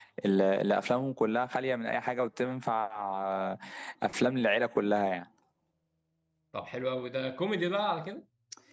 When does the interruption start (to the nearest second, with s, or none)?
none